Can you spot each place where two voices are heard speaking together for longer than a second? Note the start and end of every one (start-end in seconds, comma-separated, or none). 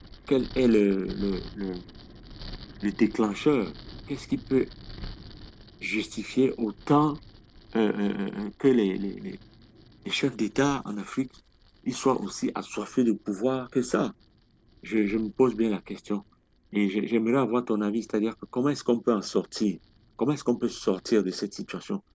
none